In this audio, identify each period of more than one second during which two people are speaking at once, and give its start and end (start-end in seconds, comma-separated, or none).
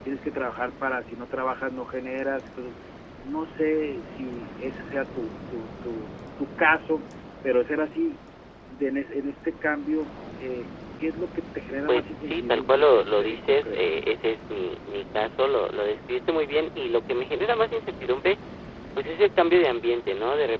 11.9-13.8